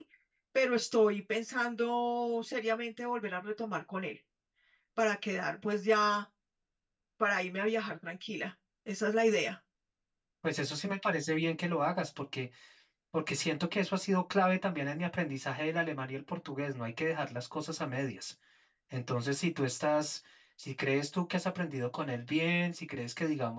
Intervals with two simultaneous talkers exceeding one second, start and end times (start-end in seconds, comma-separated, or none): none